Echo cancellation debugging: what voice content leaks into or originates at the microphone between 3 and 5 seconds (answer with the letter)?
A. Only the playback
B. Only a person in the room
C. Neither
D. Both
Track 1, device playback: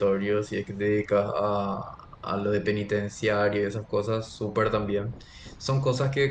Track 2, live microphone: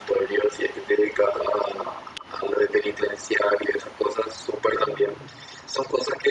A